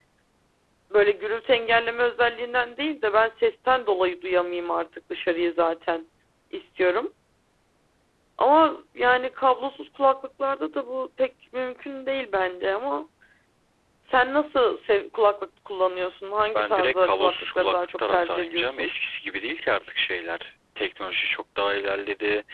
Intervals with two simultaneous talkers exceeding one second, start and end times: 16.5-18.9

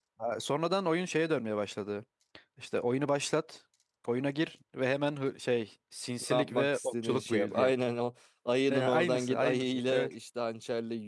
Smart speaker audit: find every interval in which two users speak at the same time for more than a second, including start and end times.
6.2-7.7, 8.7-10.1

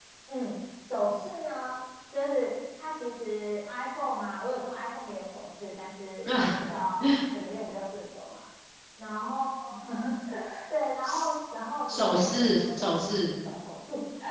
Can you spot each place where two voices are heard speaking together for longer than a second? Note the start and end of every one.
11.9-13.2

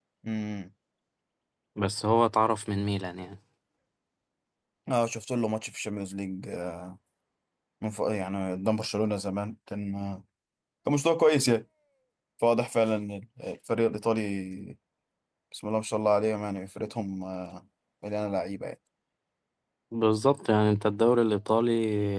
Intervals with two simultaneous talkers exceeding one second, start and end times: none

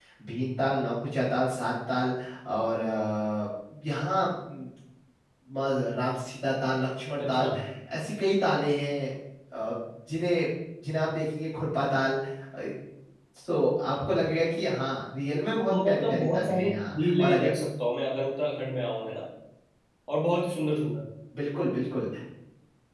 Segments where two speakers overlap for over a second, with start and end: 15.7-17.5

